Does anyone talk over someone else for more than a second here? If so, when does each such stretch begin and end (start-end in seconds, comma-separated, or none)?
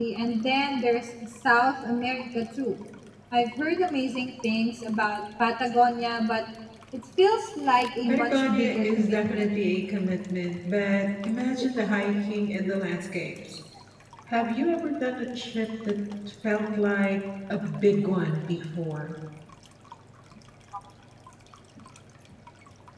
8.1-9.4